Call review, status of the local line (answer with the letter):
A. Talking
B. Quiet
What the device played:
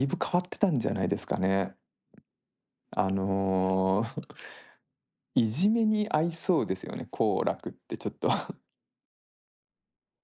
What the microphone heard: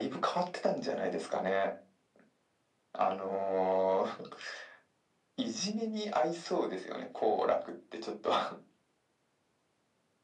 B